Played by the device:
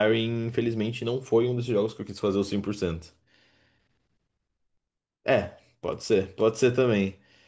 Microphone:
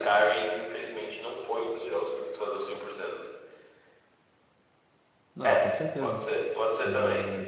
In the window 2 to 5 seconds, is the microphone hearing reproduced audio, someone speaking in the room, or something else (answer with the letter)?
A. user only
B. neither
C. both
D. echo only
D